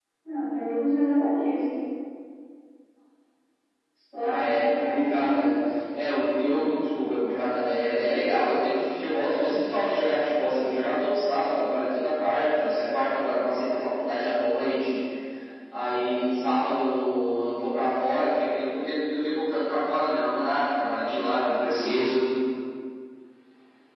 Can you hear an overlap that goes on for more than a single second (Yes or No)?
Yes